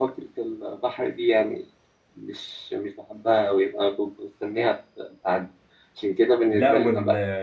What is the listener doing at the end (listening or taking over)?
taking over